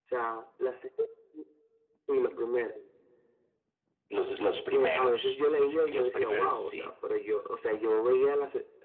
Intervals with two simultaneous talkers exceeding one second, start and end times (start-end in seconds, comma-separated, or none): 4.7-6.9